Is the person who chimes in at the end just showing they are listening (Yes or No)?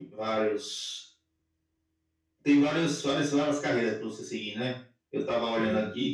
Yes